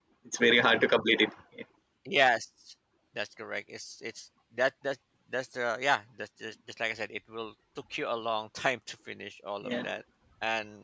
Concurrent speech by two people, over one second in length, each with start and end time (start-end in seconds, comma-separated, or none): none